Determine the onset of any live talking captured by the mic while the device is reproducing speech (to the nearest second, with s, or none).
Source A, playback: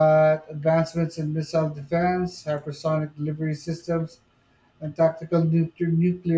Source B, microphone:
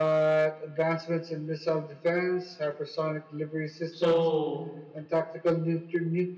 4 s